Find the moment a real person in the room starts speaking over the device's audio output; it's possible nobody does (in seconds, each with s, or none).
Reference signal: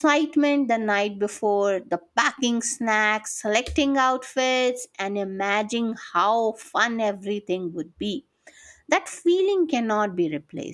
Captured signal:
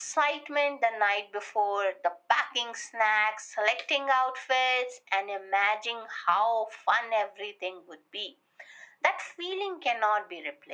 none